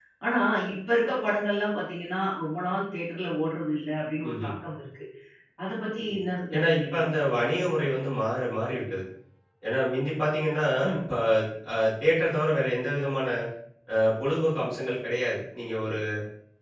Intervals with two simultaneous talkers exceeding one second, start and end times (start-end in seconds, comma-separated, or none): none